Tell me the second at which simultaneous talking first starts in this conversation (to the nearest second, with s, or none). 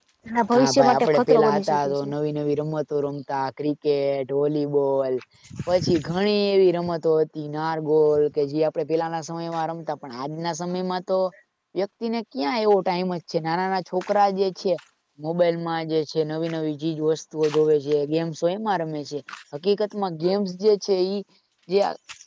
1 s